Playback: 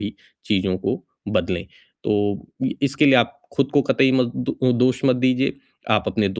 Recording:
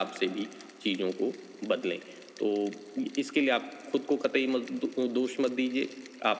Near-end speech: none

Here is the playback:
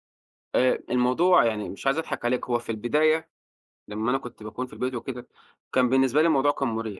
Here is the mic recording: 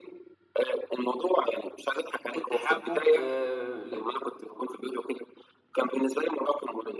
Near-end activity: present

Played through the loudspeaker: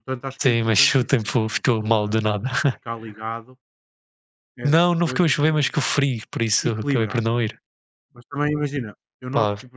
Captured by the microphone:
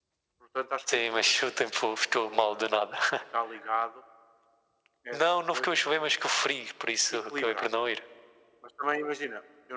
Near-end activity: none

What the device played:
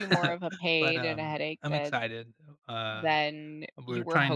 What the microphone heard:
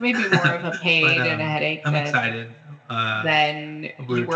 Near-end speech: none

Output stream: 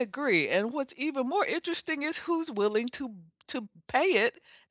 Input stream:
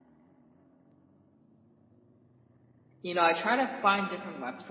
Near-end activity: present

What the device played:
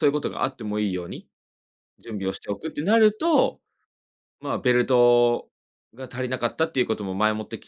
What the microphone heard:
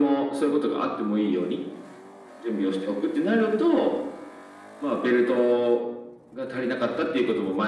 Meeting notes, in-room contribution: none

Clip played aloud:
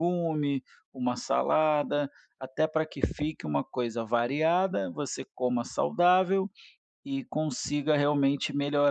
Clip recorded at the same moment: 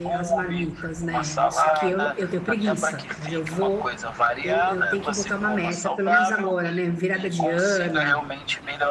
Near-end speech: present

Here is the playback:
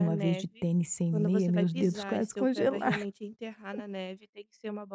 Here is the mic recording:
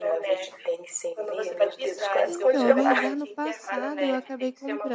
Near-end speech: present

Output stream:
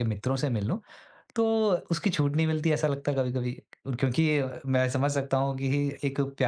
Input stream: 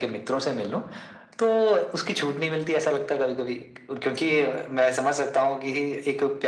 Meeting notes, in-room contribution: none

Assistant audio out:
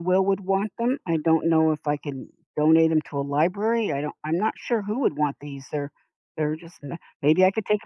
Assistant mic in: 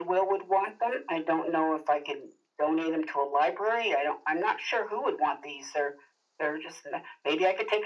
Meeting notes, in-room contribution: none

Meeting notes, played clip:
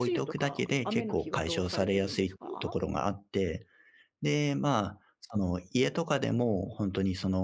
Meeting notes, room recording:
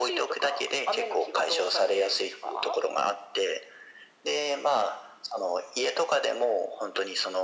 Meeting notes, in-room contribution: none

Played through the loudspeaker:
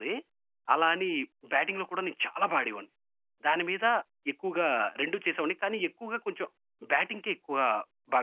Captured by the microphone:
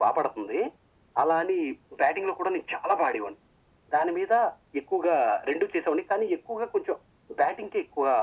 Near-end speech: none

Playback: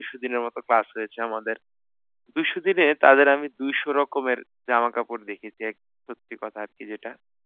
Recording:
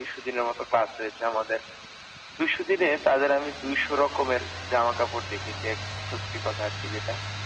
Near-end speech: none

